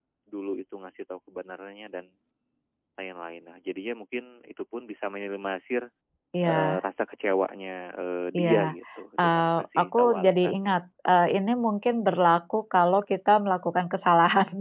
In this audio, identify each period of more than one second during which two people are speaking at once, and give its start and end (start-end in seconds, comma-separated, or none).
9.2-10.8